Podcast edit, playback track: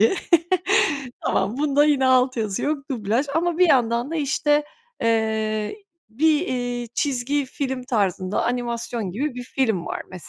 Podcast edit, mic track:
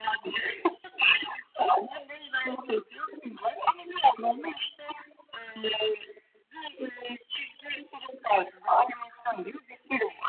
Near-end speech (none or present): none